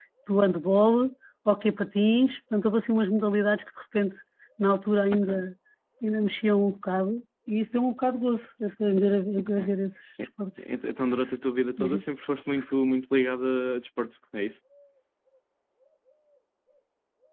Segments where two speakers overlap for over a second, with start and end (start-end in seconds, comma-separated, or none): none